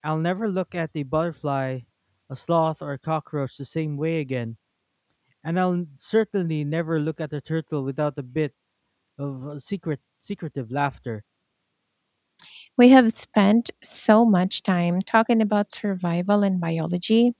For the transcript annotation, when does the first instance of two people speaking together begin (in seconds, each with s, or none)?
none